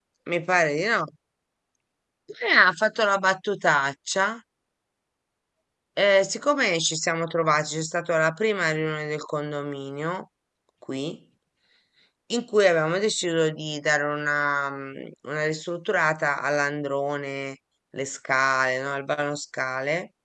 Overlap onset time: none

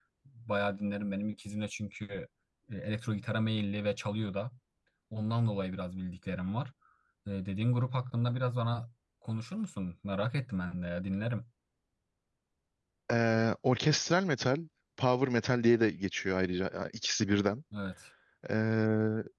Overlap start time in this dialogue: none

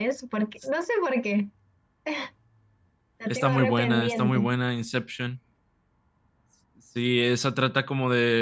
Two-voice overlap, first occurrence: 3.3 s

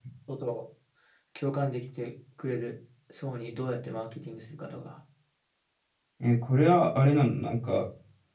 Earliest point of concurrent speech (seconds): none

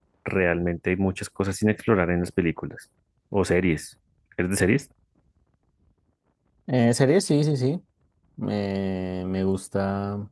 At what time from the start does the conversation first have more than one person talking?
none

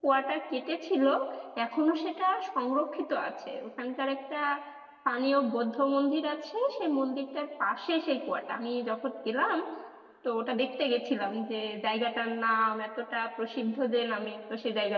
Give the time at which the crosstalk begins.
none

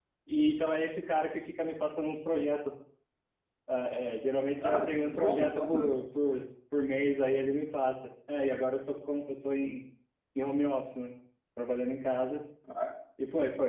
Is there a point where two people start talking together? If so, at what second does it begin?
4.6 s

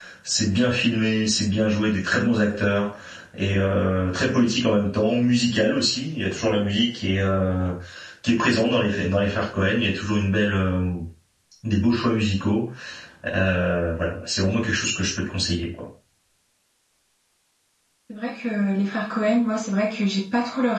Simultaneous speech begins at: none

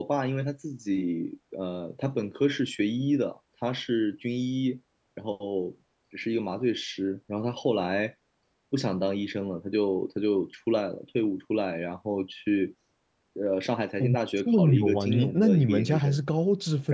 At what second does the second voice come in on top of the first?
14.0 s

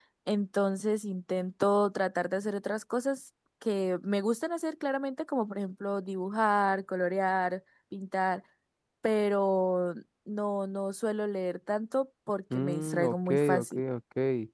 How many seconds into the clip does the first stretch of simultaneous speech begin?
12.5 s

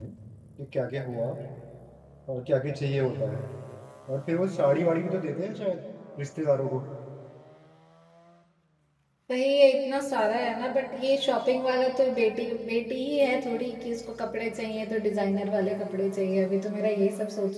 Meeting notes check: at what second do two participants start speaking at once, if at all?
none

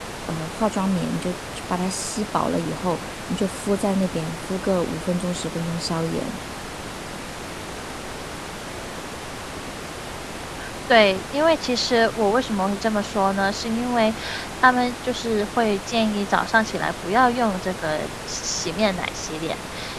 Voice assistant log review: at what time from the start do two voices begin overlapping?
none

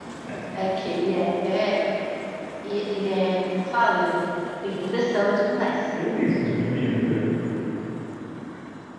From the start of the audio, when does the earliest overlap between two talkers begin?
none

